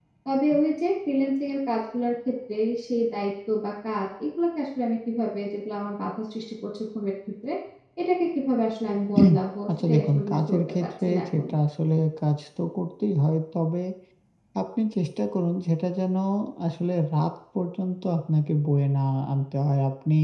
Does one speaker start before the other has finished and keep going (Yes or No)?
Yes